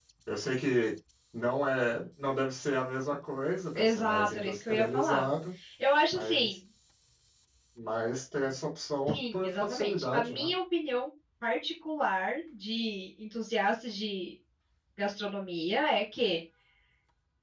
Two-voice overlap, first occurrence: 3.8 s

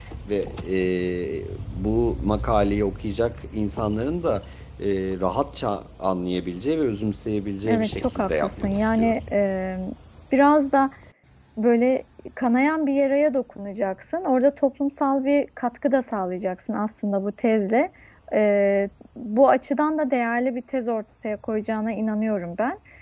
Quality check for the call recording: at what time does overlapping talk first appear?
7.6 s

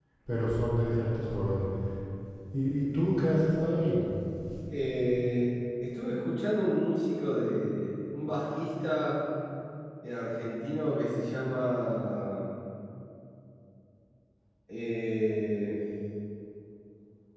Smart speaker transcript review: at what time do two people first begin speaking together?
none

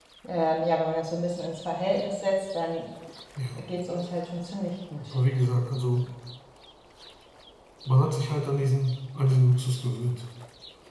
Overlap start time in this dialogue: none

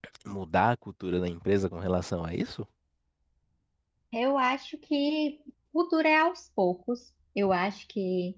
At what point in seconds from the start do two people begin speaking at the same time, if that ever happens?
none

